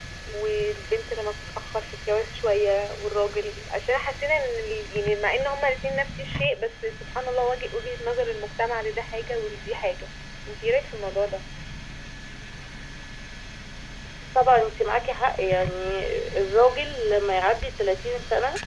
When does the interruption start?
none

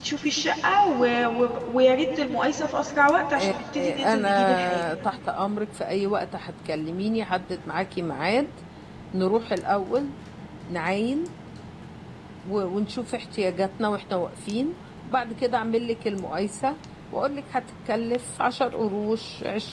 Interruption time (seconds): 3 s

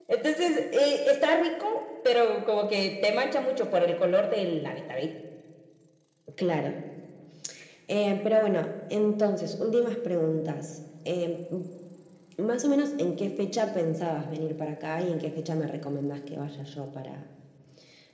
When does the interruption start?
none

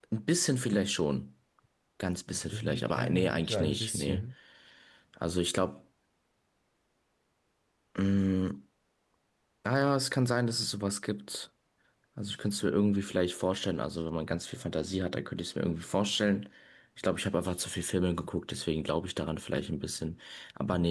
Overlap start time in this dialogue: 3 s

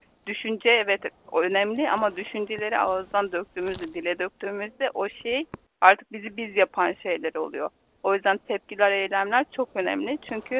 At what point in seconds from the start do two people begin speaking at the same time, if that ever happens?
none

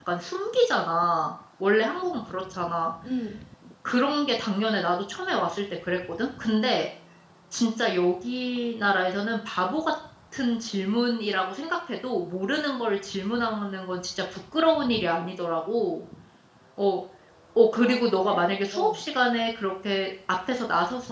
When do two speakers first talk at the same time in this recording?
18 s

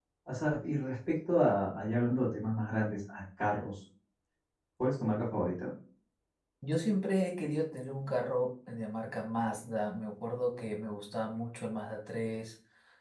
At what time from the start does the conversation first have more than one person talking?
none

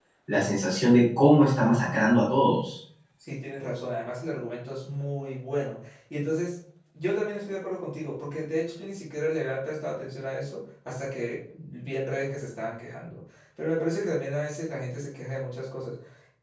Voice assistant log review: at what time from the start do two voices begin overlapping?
none

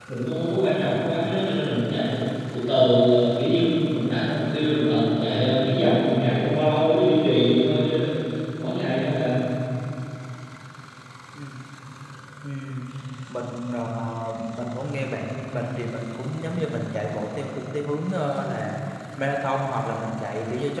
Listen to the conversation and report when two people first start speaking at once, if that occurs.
none

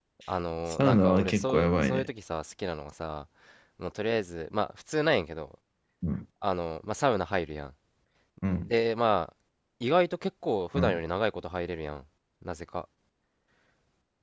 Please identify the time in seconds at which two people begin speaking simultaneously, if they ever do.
1 s

